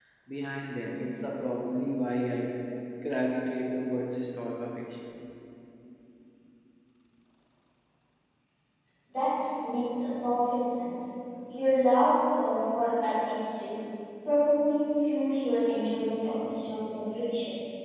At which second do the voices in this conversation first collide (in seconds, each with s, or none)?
none